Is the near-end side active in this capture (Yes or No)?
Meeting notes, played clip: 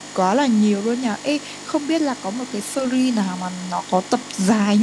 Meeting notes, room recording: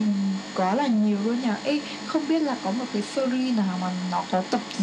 No